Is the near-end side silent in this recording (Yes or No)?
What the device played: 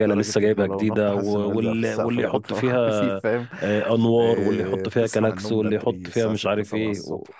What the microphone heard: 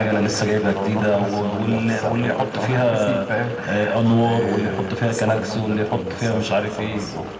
Yes